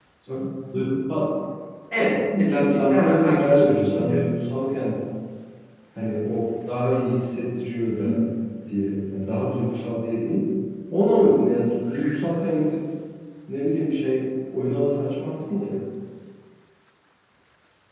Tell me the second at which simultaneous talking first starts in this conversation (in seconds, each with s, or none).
2.5 s